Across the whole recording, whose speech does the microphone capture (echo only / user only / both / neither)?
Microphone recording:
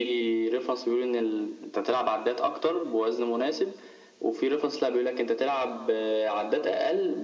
echo only